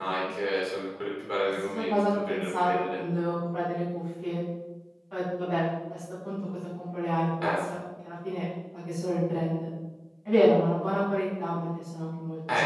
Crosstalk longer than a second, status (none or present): present